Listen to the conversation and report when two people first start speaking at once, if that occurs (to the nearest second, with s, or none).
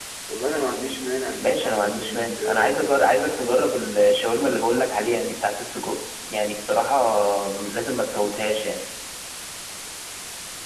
1 s